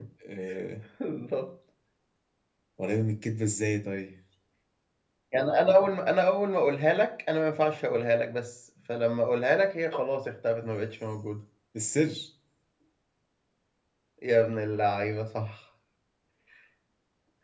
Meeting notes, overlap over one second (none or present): none